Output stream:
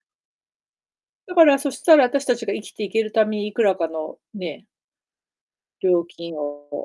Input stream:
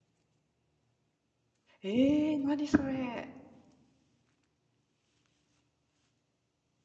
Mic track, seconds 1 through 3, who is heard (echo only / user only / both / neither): user only